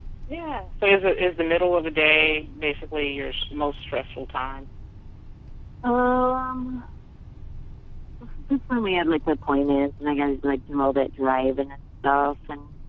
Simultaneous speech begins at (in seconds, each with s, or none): none